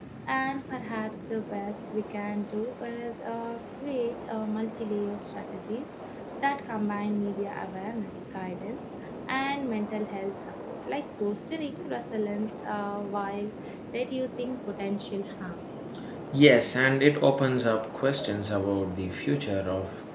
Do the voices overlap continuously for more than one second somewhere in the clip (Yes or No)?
No